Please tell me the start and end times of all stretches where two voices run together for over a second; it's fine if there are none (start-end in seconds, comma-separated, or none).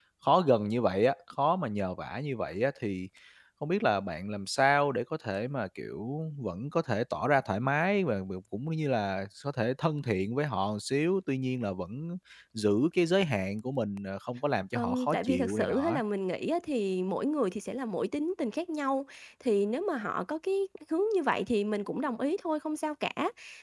14.8-16.0